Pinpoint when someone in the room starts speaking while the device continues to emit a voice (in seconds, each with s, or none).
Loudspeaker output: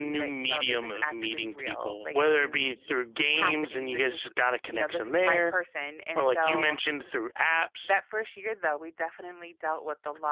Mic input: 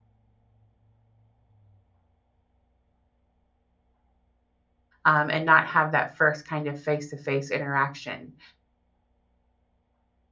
5.1 s